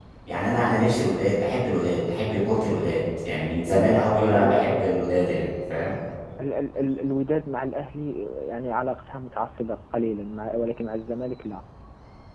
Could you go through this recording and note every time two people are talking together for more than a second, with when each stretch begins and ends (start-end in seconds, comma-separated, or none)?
3.6-4.8